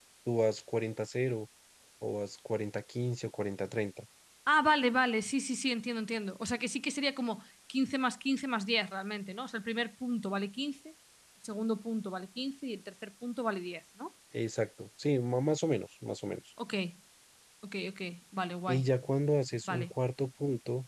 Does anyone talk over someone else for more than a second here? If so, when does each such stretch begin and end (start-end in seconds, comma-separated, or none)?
none